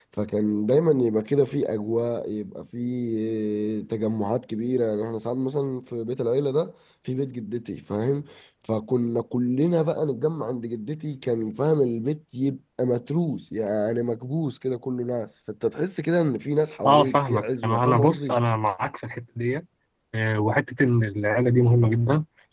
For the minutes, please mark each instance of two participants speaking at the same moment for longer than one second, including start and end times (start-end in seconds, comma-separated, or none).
16.9-18.4